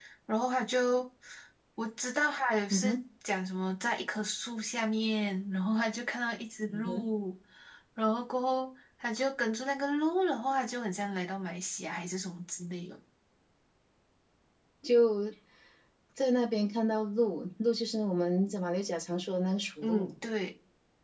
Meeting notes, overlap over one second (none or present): none